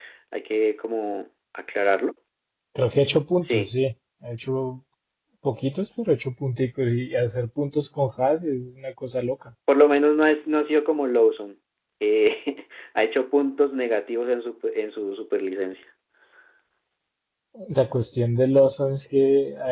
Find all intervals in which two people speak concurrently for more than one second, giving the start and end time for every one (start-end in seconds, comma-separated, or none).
none